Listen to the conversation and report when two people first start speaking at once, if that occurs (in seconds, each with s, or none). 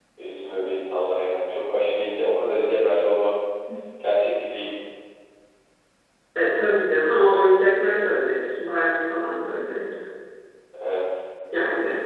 none